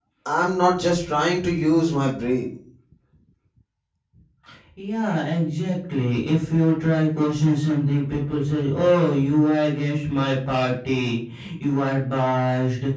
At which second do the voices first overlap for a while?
none

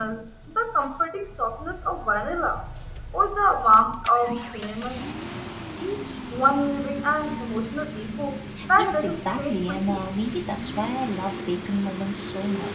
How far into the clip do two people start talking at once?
8.6 s

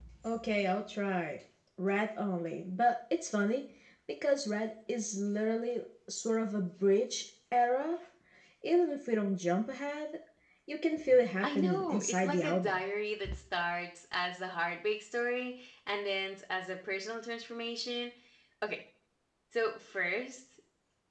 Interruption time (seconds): 11.4 s

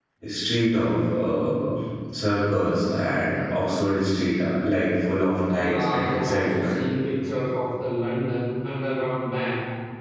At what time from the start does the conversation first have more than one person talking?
5.5 s

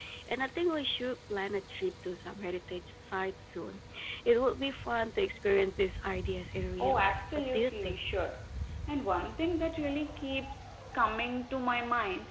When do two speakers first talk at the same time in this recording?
6.8 s

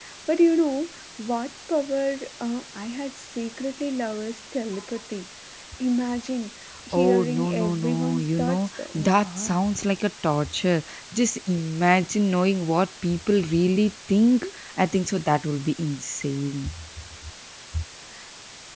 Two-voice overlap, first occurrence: 6.9 s

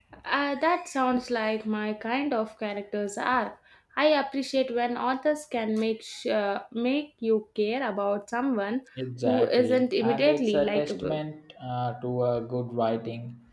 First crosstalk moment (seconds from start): 9.2 s

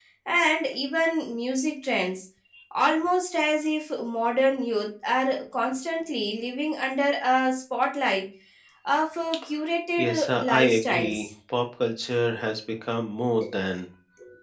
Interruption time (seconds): 10.0 s

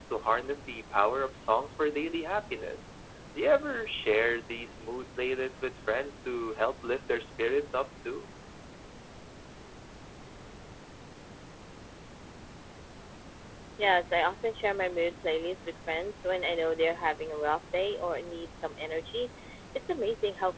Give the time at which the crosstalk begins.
none

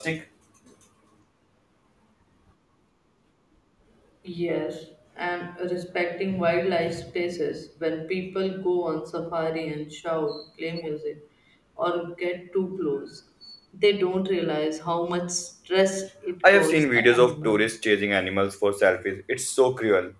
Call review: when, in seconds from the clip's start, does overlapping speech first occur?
16.4 s

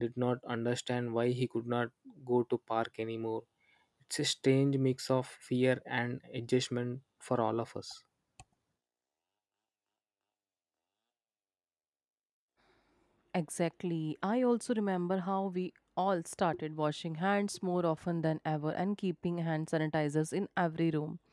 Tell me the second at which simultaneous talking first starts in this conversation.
none

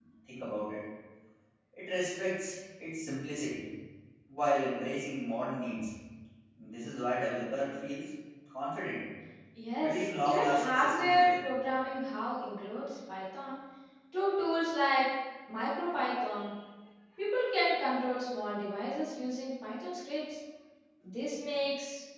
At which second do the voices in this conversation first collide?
9.8 s

